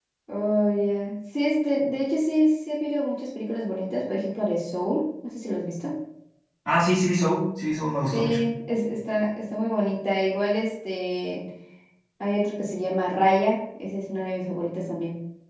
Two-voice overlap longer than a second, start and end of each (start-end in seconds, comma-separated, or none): none